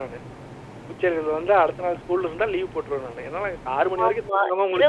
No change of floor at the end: No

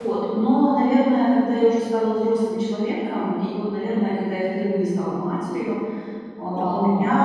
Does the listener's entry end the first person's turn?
No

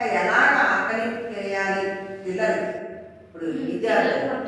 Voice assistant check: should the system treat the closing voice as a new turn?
Yes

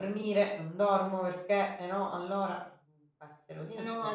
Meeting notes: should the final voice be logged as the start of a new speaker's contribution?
Yes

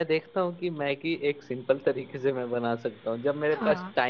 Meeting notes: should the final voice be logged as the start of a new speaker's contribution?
No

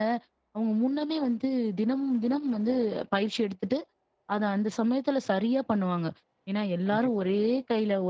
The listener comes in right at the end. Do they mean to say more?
No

